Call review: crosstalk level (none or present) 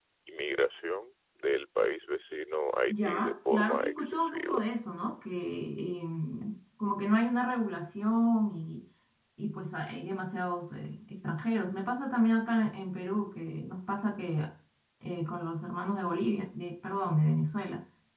present